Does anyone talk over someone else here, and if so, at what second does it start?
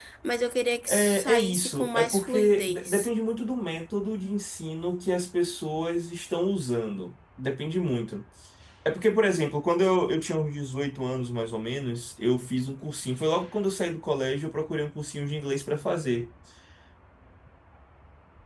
0.9 s

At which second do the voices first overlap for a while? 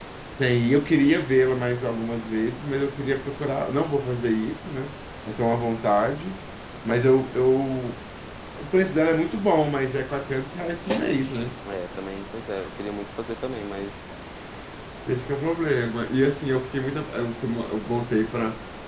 none

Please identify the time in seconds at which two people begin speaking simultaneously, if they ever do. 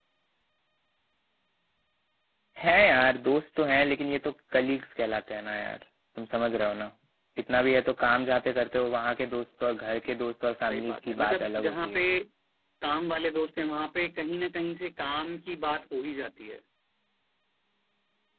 10.7 s

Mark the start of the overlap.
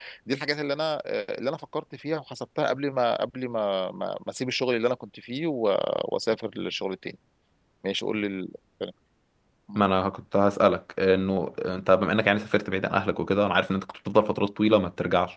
none

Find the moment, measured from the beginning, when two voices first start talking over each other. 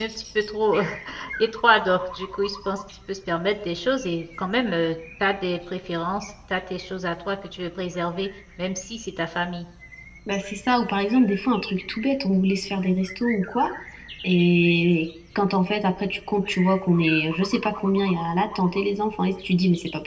none

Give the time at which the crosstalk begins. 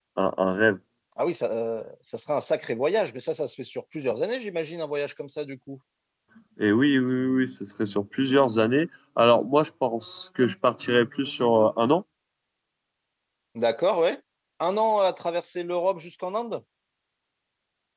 none

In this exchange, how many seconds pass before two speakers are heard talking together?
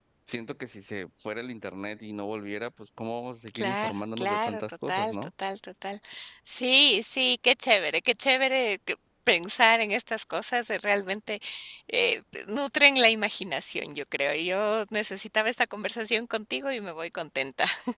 3.5 s

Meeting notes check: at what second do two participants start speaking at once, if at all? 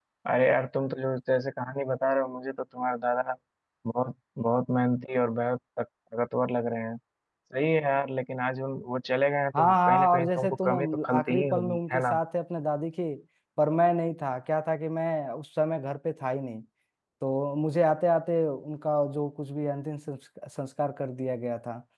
9.5 s

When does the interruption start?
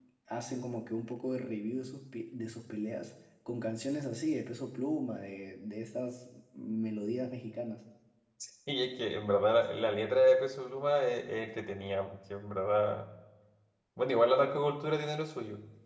none

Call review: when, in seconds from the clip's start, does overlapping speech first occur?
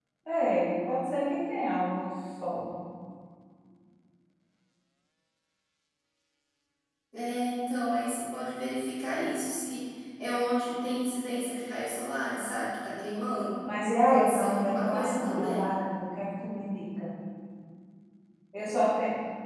14.1 s

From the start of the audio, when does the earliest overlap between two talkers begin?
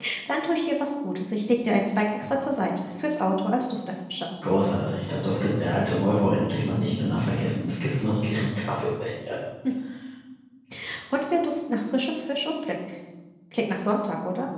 none

